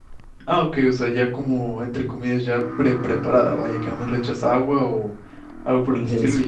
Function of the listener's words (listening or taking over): listening